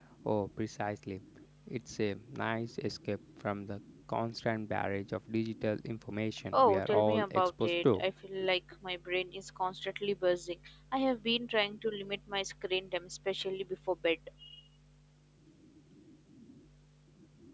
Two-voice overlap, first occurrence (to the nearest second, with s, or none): 7 s